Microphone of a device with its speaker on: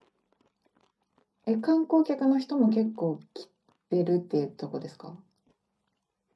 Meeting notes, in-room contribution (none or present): present